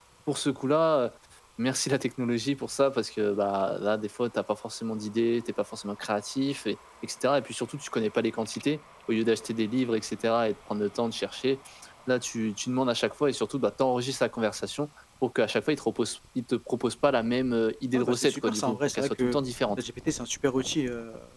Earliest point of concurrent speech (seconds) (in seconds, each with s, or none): 17.9 s